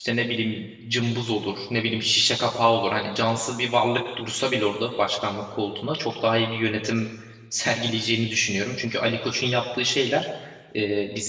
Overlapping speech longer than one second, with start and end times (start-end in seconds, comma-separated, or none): none